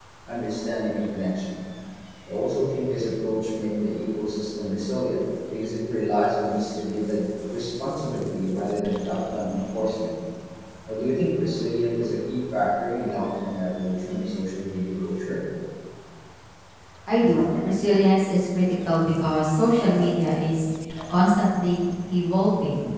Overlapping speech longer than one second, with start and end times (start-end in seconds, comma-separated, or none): none